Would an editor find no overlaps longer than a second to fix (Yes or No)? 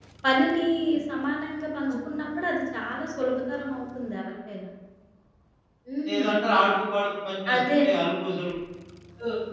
Yes